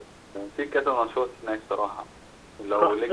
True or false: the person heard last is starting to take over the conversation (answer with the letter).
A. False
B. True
B